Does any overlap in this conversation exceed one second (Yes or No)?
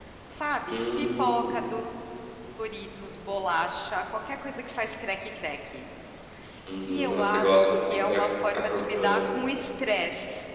Yes